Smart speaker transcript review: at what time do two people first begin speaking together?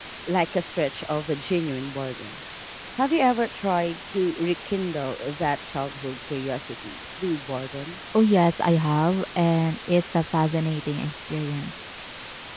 none

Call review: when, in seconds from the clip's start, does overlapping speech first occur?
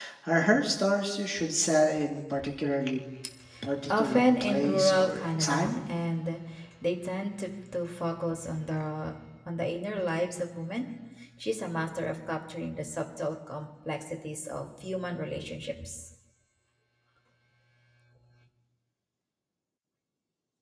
3.9 s

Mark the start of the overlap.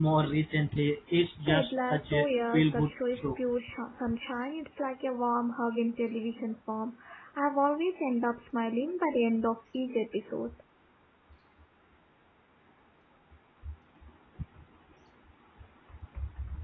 1.5 s

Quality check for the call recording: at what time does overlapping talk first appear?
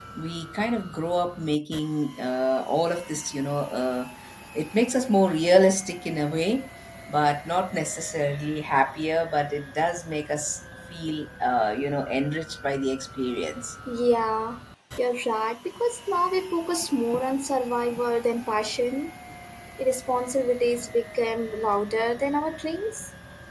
none

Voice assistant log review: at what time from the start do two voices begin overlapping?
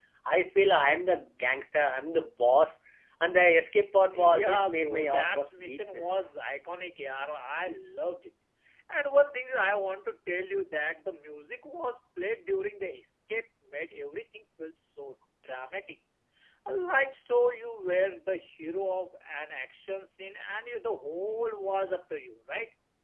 4.1 s

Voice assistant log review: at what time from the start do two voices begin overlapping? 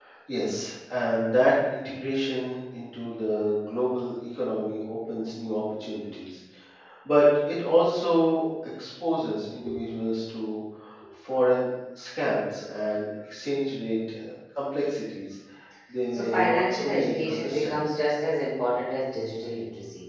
16.1 s

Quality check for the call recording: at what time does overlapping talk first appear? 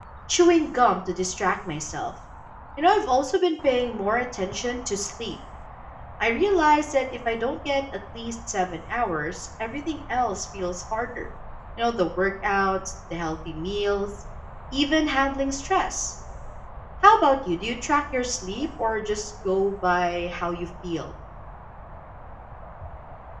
none

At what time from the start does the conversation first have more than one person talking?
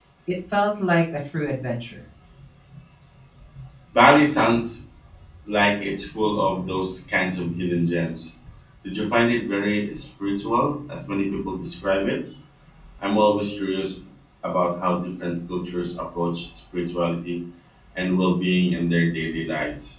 none

